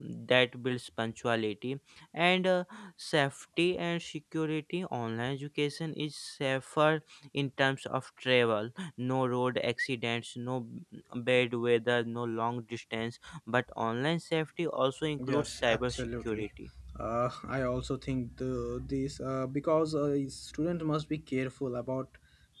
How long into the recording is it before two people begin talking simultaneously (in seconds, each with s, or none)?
15.0 s